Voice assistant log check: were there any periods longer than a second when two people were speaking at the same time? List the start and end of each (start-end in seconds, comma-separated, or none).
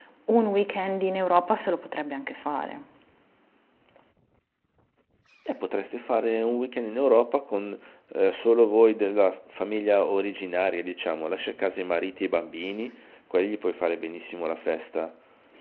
none